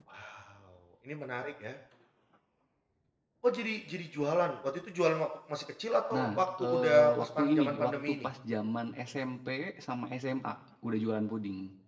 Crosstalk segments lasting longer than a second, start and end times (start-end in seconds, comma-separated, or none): 6.1-8.3